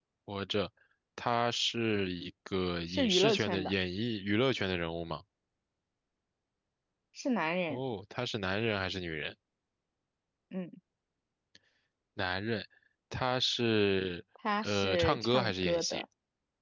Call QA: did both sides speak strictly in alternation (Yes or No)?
No